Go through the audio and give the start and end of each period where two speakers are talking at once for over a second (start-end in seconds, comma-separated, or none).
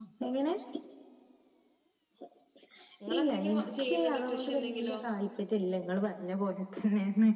3.1-5.0